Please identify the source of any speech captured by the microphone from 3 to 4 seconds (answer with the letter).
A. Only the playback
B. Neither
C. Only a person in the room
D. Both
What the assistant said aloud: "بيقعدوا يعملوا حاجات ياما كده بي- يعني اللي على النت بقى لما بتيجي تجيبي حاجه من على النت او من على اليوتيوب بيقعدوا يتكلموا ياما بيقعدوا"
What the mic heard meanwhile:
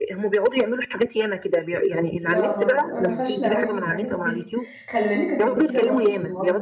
D